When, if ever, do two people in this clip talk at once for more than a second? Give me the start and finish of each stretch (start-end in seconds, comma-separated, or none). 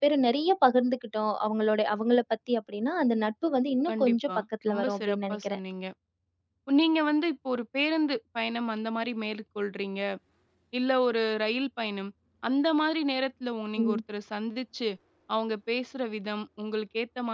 3.9-5.6